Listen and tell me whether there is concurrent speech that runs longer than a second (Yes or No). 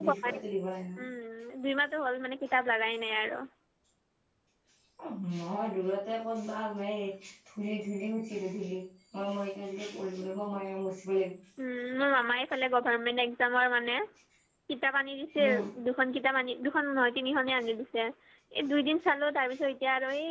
No